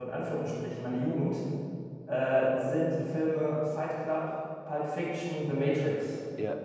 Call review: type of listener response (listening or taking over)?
taking over